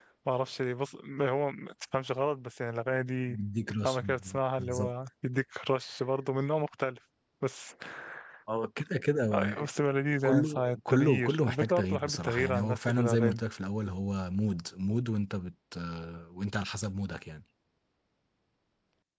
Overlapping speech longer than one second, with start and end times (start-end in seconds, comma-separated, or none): 10.2-13.4